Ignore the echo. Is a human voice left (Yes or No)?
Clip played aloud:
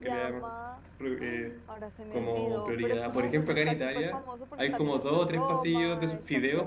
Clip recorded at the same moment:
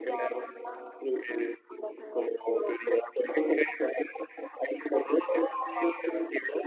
No